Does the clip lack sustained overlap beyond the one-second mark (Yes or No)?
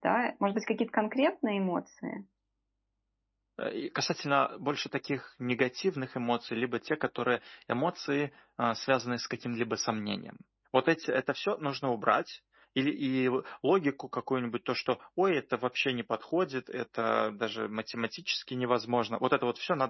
Yes